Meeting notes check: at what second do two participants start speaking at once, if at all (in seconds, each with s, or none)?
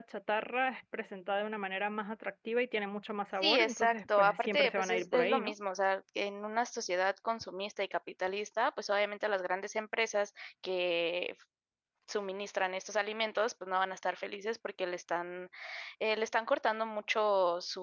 3.4 s